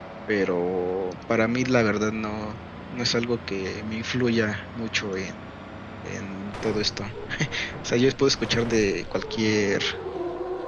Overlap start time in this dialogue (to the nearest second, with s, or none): none